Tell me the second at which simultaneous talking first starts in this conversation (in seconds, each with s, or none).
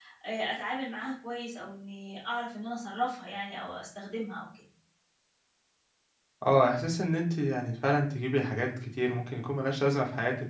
none